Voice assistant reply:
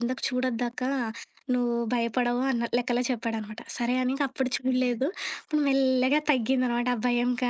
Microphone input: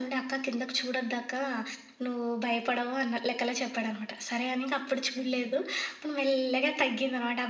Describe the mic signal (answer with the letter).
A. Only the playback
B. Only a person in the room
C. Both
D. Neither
A